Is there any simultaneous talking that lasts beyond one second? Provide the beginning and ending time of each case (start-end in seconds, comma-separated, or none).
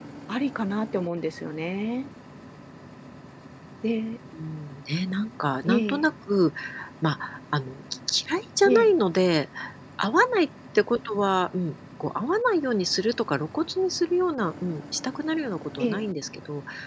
none